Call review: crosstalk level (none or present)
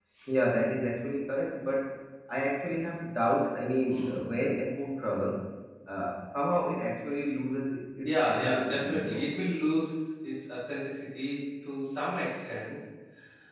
present